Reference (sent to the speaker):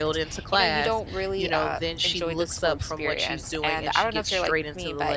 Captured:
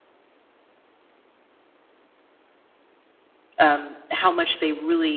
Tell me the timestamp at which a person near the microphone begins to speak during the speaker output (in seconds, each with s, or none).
3.6 s